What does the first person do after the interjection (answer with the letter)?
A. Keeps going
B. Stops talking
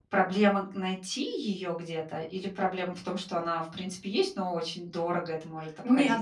B